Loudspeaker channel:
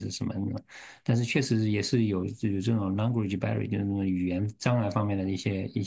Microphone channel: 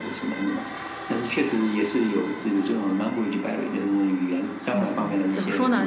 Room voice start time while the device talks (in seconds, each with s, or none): 4.7 s